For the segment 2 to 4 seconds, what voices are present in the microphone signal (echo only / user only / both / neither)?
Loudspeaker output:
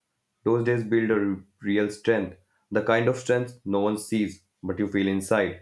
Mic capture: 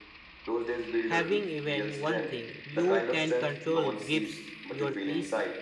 both